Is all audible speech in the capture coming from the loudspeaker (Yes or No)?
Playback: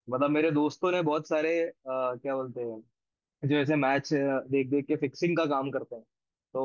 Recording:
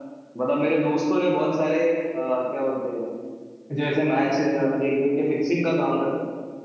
Yes